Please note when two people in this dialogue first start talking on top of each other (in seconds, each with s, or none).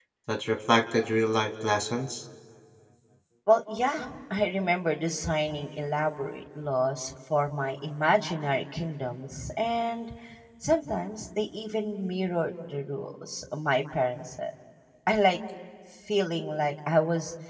none